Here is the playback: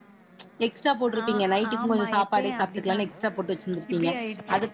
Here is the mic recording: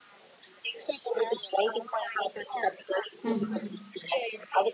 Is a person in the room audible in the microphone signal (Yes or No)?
Yes